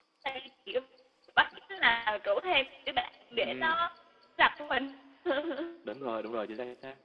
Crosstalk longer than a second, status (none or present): none